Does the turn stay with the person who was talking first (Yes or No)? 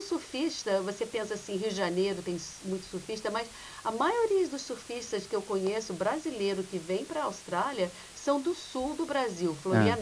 Yes